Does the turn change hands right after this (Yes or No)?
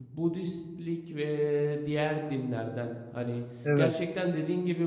No